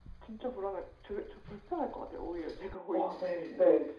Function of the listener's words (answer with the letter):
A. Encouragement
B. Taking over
B